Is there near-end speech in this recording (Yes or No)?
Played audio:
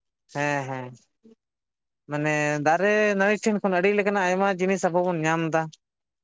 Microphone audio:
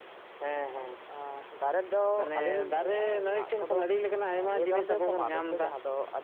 Yes